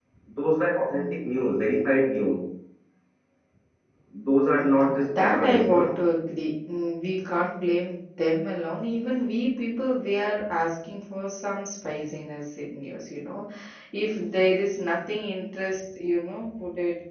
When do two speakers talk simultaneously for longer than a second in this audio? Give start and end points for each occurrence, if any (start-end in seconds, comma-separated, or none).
4.6-6.0